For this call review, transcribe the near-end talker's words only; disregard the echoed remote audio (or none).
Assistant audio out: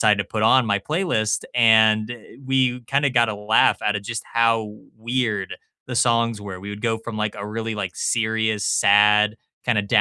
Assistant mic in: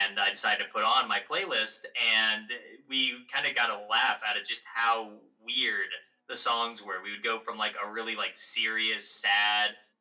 none